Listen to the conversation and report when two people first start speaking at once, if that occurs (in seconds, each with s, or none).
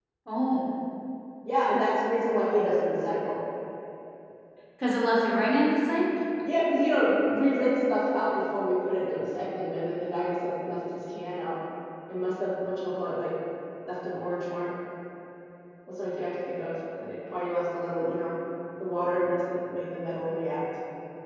none